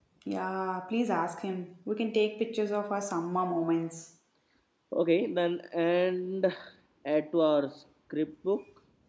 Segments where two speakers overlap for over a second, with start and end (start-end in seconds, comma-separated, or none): none